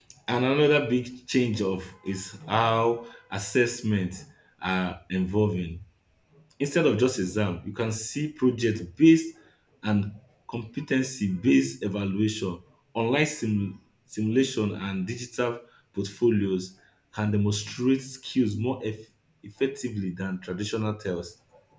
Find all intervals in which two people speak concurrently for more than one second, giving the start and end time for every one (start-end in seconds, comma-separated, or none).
none